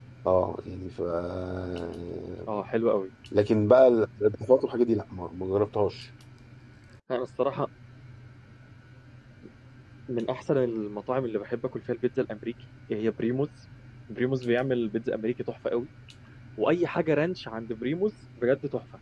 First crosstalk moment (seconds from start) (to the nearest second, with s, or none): none